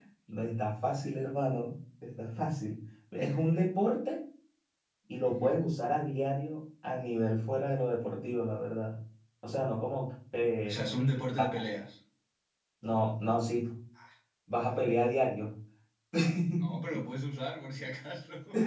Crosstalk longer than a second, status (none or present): none